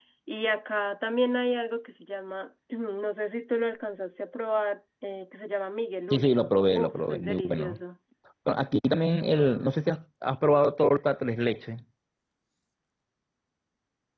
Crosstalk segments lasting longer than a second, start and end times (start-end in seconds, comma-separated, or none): 6.1-7.7